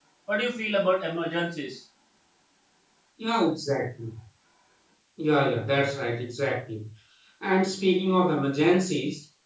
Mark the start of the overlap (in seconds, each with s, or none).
none